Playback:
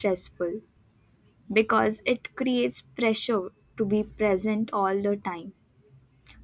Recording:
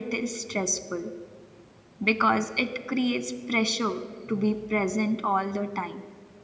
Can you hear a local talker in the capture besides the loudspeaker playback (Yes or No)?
No